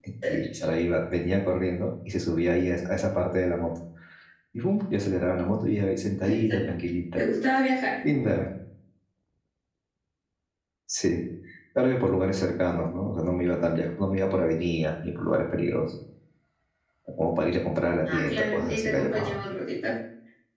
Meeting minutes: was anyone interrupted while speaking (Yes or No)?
Yes